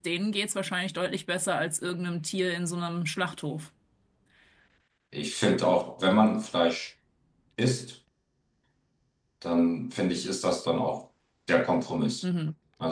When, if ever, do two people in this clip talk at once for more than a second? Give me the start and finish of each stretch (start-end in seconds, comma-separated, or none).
none